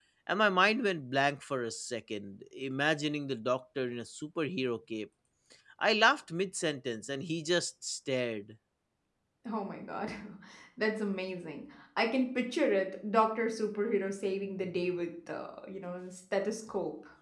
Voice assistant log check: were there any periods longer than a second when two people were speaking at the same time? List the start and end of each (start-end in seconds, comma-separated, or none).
none